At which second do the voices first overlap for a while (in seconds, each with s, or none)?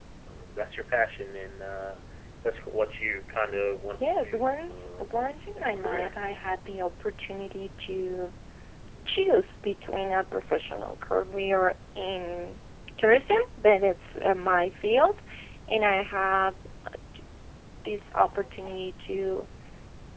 4.0 s